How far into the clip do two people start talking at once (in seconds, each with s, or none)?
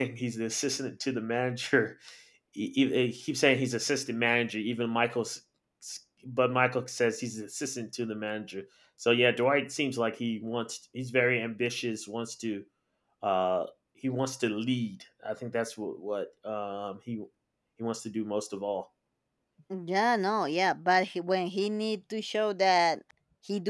none